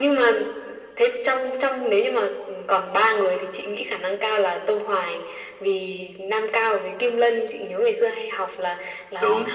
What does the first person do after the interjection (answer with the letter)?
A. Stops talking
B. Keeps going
B